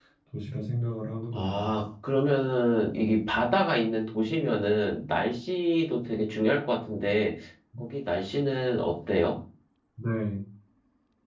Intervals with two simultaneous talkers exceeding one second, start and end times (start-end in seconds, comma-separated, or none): none